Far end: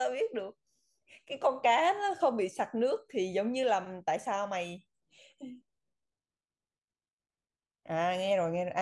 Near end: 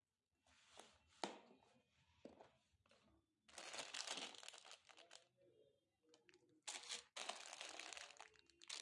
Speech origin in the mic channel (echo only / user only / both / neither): neither